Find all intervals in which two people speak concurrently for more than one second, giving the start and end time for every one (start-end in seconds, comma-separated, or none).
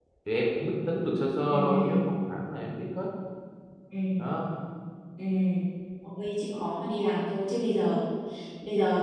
none